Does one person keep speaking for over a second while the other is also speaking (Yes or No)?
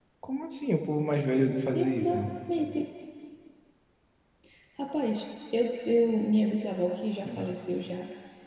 No